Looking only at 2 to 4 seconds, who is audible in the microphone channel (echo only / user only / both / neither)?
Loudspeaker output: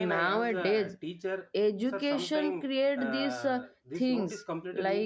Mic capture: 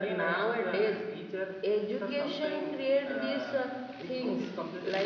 echo only